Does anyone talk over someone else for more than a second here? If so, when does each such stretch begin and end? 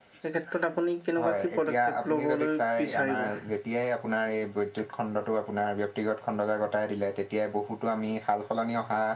1.2-3.2

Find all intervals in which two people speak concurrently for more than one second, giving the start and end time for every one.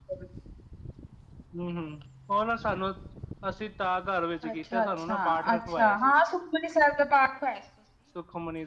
4.5-6.1

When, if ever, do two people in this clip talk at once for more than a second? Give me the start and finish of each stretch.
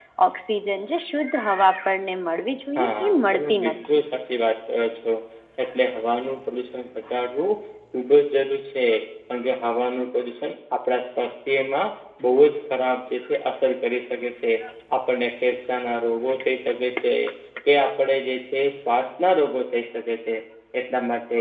2.8-4.0

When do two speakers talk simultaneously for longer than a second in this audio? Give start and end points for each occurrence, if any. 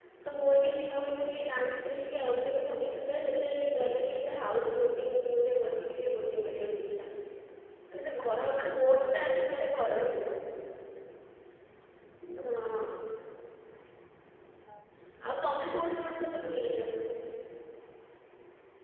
15.3-16.8

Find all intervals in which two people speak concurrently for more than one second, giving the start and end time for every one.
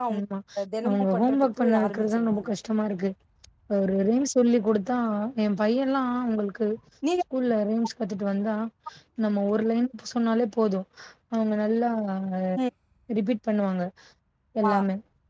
0.9-2.5

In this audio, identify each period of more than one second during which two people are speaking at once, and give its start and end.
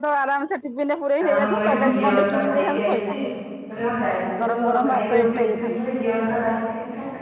1.2-3.2, 4.4-5.8

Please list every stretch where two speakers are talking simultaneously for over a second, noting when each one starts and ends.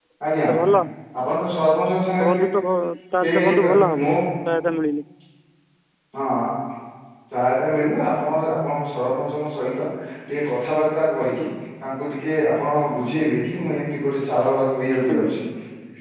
none

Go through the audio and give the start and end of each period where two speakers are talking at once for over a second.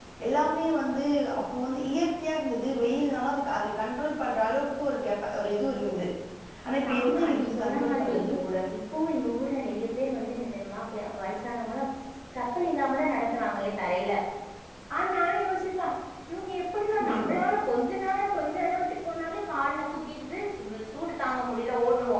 6.8-8.2

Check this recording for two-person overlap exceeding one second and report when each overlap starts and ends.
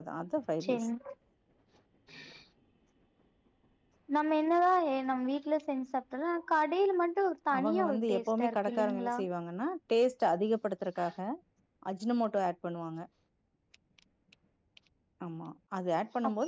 7.6-9.2

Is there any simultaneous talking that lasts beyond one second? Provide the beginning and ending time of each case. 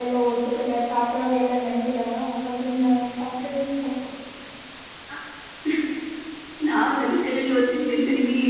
none

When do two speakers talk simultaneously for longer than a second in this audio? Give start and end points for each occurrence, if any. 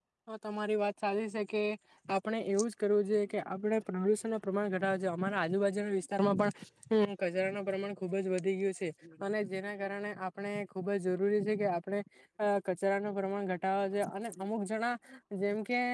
none

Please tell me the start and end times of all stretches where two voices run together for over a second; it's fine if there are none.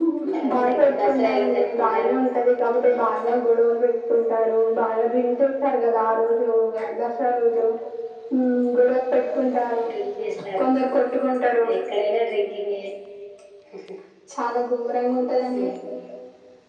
0.5-2.1

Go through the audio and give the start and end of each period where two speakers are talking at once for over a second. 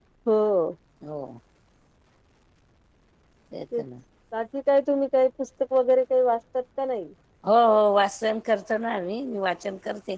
none

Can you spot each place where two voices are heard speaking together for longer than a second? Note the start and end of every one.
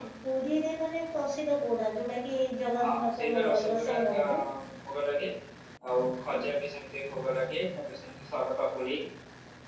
2.8-4.4

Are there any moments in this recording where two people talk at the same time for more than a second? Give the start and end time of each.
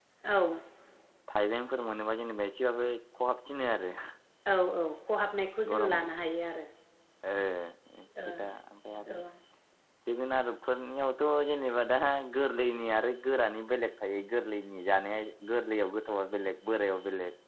none

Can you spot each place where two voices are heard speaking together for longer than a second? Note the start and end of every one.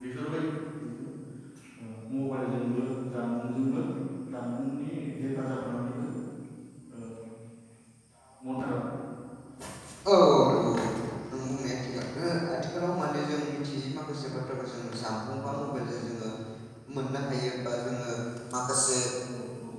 none

